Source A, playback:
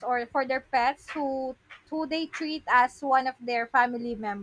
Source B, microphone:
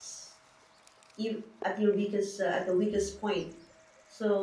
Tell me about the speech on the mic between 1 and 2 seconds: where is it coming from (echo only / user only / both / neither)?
user only